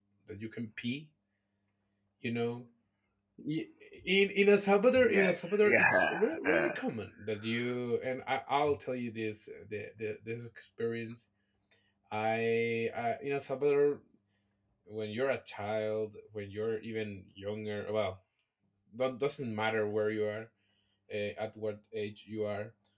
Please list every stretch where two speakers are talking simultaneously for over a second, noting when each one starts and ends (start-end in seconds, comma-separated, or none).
5.0-6.7